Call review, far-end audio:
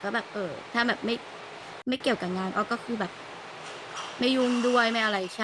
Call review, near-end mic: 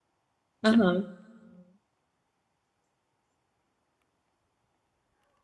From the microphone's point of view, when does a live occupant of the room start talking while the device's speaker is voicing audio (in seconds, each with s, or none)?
0.6 s